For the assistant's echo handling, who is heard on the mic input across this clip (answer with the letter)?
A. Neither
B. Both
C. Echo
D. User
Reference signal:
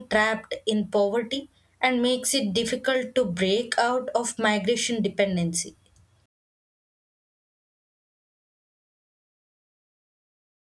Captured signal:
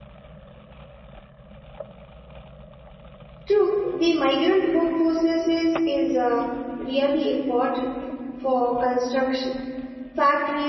D